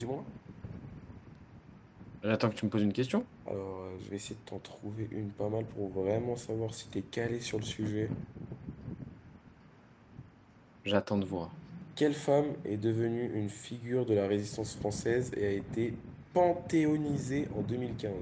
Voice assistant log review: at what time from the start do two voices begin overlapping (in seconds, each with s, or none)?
none